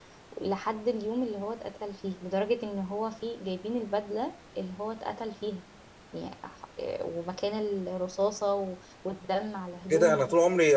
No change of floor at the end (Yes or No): No